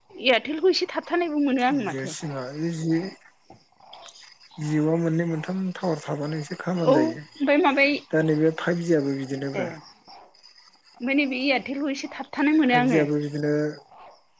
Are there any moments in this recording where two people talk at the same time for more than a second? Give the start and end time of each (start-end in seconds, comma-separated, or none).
none